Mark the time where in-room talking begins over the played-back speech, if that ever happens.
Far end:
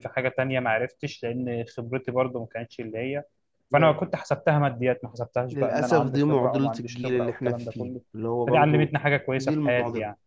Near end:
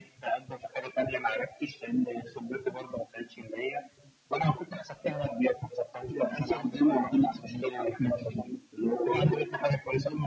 none

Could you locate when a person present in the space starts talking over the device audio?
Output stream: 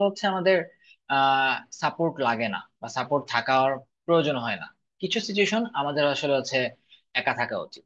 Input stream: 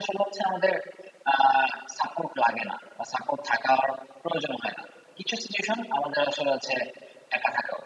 none

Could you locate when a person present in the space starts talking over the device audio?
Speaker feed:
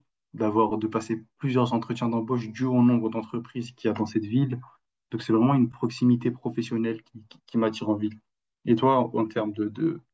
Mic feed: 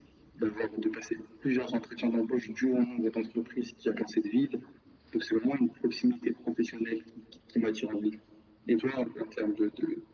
none

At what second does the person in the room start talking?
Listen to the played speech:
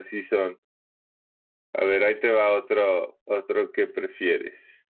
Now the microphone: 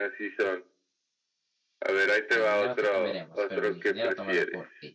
2.3 s

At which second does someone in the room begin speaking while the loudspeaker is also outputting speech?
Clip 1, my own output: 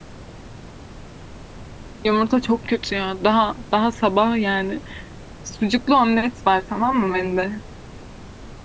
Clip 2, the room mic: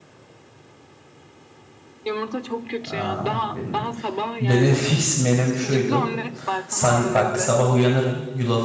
2.9 s

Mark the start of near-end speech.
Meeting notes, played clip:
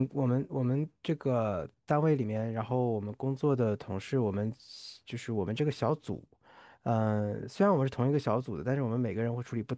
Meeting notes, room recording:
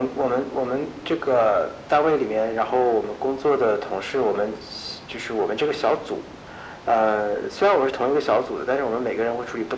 none

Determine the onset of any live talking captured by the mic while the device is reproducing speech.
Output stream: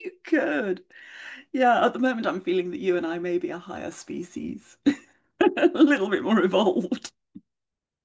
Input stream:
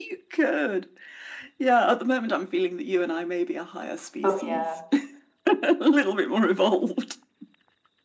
4.2 s

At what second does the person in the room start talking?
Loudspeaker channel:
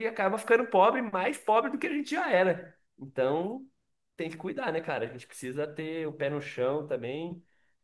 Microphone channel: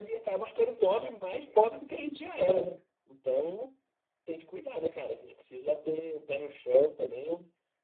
none

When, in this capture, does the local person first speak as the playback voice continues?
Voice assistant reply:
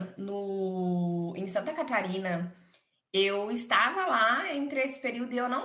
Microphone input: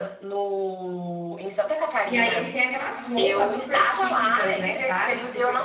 2.0 s

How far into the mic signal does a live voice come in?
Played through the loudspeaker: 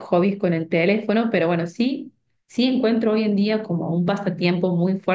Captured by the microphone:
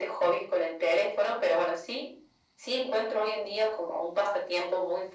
none

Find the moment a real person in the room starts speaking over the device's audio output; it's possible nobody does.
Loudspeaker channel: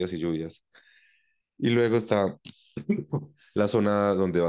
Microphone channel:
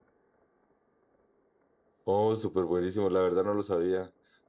2.0 s

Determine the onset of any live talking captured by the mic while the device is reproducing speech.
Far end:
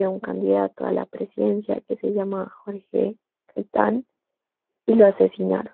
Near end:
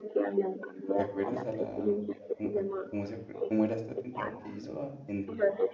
0.9 s

